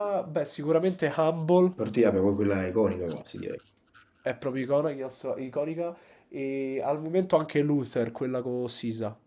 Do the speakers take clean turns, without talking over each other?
Yes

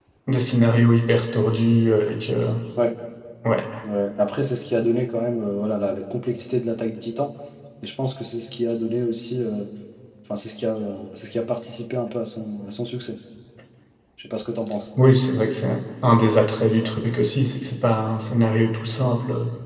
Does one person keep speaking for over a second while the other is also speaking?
No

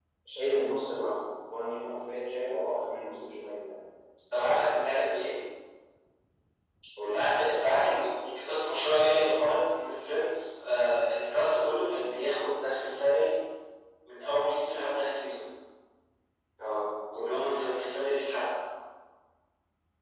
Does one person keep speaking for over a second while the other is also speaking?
No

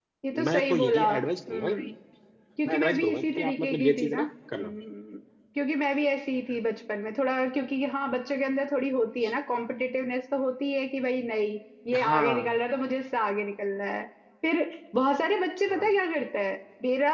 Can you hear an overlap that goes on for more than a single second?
Yes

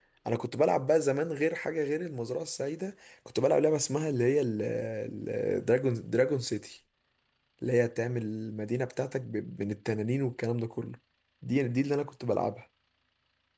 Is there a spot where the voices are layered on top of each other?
No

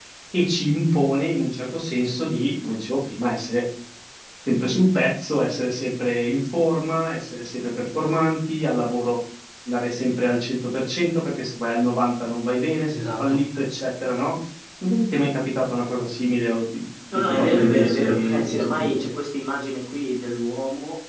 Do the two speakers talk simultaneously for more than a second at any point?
Yes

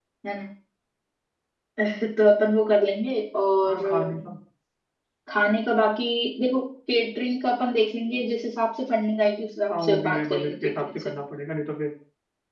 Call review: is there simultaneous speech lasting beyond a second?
Yes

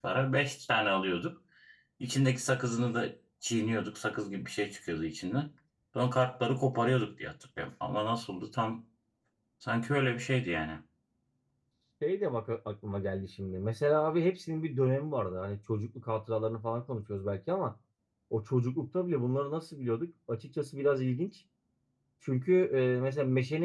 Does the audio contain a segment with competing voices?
No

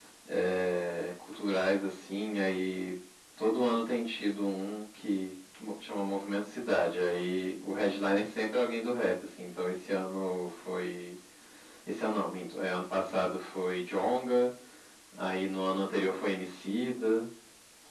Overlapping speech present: No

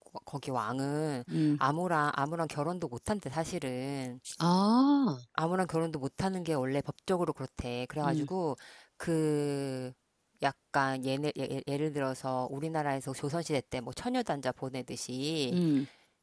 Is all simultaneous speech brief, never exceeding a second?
Yes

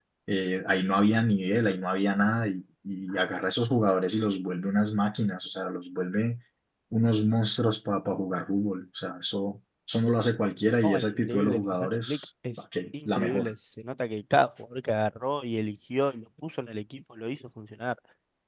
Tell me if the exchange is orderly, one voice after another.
No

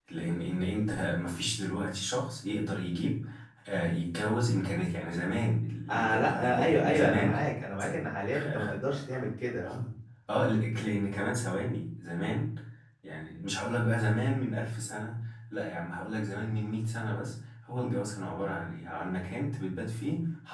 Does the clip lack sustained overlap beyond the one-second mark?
No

